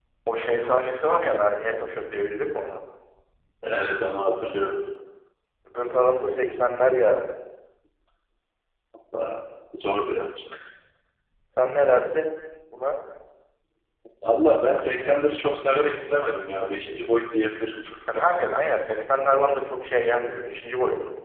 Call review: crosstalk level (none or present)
none